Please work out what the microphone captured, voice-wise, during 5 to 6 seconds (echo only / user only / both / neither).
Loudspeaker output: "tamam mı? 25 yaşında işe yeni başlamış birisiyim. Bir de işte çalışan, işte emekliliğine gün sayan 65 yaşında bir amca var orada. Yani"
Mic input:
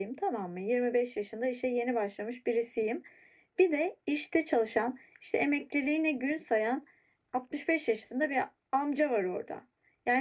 echo only